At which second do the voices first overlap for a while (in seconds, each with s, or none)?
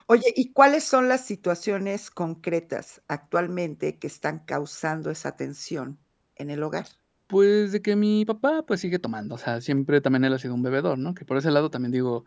none